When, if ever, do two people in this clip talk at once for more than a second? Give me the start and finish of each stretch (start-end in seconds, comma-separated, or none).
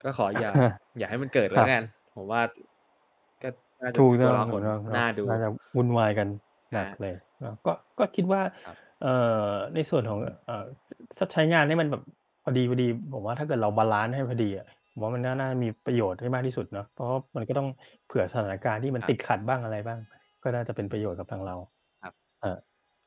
4.0-5.3